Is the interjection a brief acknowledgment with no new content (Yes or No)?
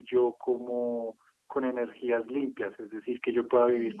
Yes